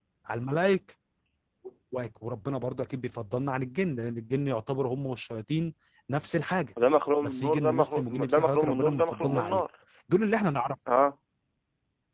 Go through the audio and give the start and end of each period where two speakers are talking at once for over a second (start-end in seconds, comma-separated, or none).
7.2-9.6